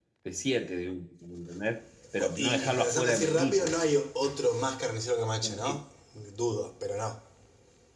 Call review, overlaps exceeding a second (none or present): present